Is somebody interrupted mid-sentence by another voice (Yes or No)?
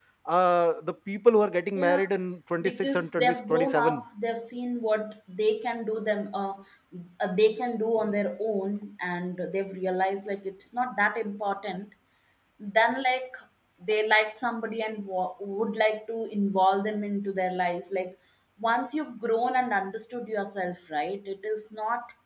Yes